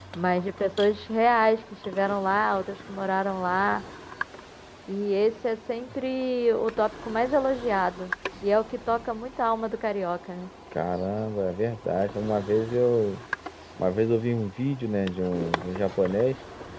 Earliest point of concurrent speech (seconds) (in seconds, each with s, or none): none